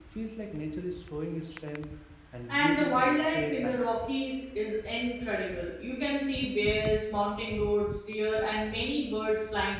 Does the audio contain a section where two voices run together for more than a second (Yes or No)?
Yes